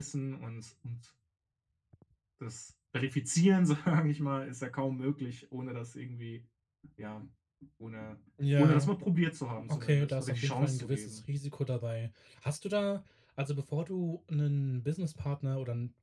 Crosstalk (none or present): present